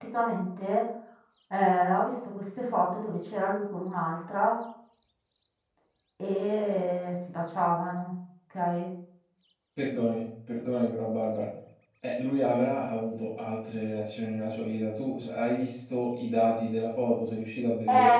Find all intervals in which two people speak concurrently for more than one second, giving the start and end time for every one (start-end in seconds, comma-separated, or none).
none